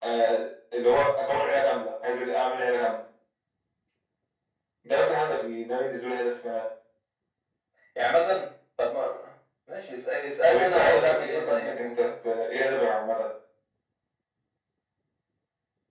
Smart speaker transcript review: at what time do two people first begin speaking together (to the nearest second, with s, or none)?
10 s